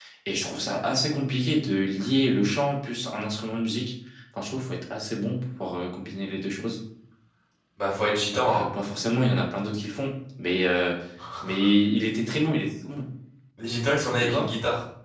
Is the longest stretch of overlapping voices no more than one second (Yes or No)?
Yes